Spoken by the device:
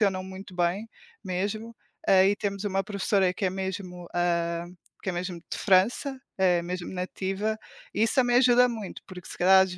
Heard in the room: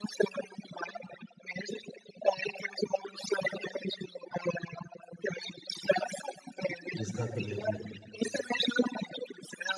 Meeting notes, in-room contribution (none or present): present